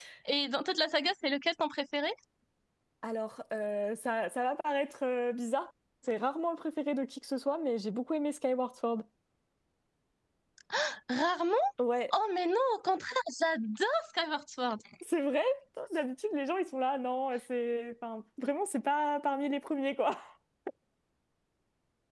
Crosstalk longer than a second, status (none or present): none